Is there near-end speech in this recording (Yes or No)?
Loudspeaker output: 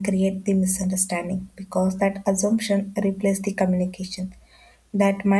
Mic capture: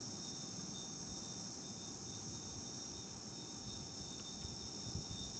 No